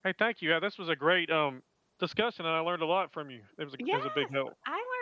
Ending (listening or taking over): taking over